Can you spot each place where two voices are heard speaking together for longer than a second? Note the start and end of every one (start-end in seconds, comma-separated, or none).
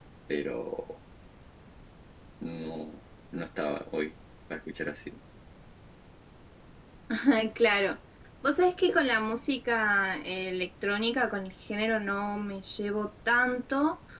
none